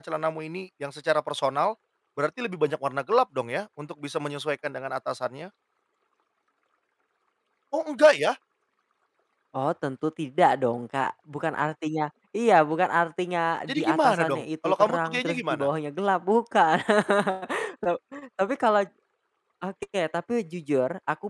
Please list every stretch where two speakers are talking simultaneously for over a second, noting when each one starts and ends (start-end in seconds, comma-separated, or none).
13.7-15.6